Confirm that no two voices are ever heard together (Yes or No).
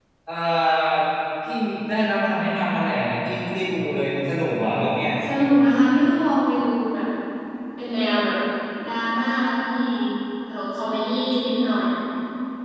Yes